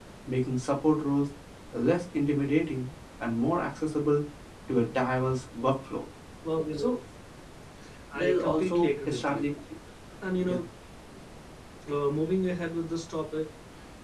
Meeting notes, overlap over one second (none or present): present